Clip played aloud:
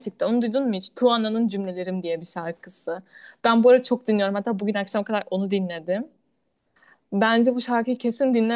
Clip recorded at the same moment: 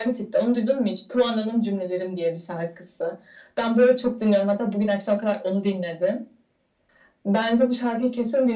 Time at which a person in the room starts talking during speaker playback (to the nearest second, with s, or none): none